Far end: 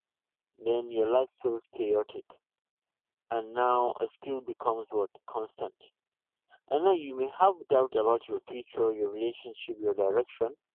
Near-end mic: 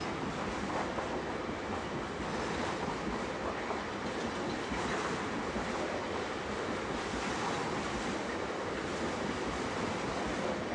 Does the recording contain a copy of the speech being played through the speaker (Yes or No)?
No